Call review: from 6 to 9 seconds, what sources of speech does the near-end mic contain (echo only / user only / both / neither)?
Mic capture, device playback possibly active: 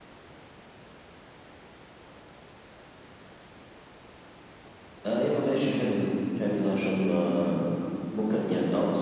echo only